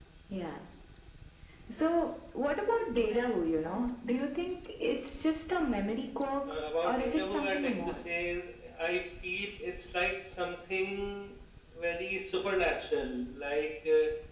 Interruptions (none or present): present